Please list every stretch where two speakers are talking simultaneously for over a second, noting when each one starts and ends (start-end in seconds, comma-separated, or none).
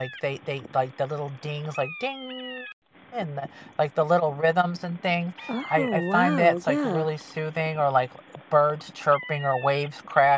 5.7-7.0